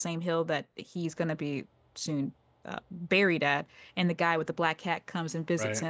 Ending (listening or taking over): listening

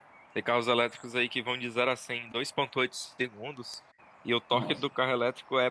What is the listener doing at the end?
listening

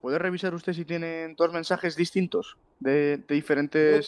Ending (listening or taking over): taking over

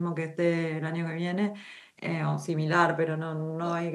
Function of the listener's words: listening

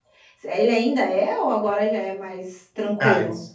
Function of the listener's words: taking over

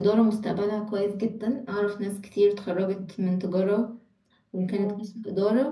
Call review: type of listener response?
listening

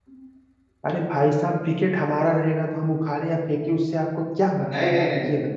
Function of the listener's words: taking over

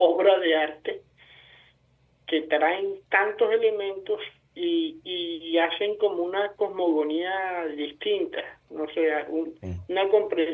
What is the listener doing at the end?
listening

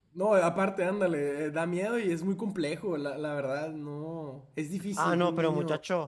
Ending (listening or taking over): taking over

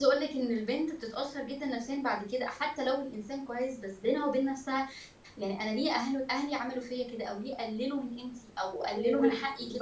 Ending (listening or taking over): taking over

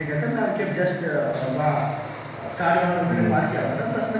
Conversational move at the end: listening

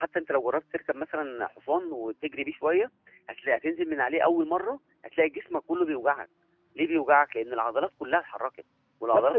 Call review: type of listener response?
taking over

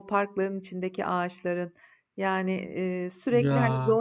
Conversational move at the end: listening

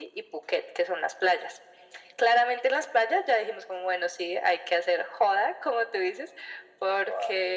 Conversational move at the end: listening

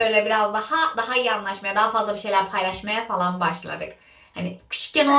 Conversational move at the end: listening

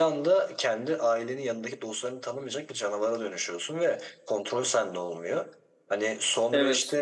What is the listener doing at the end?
listening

